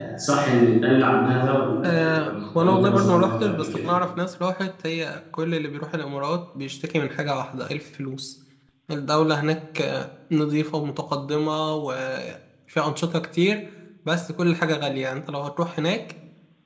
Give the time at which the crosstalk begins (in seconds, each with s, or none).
1.8 s